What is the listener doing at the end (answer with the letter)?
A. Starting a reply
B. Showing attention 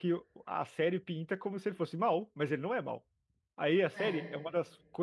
B